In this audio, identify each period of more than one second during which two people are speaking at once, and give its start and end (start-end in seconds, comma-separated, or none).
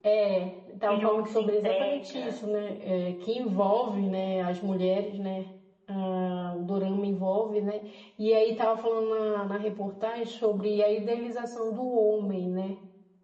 0.8-2.4